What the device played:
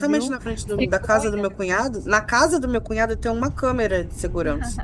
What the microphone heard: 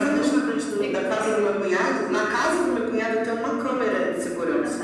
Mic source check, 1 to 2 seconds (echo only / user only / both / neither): echo only